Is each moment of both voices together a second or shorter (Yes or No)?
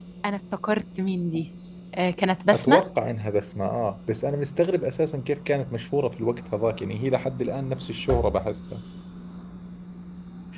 Yes